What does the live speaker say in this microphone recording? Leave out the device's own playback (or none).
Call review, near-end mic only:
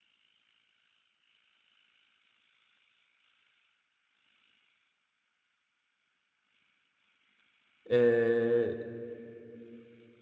e,